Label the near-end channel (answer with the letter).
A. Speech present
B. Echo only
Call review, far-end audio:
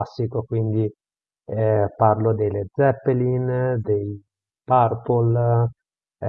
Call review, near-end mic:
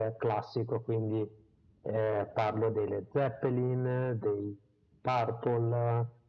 B